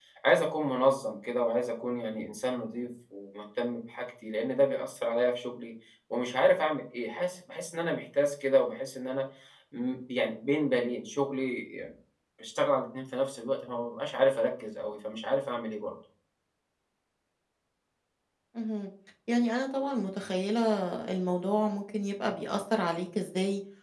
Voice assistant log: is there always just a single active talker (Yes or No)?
Yes